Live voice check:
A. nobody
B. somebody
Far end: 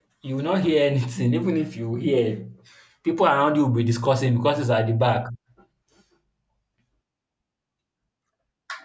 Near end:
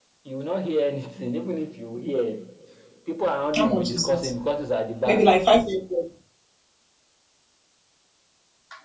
B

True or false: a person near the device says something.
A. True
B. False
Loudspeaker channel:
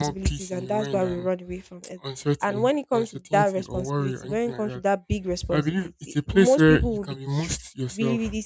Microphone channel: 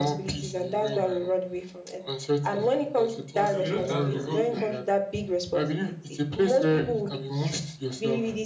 A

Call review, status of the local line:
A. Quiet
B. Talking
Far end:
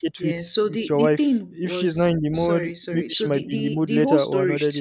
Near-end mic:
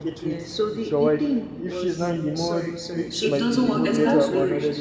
B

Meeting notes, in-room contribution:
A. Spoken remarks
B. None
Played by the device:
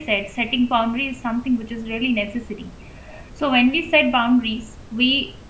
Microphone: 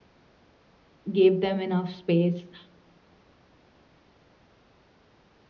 A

